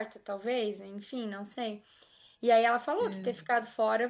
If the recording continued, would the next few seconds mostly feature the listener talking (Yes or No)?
No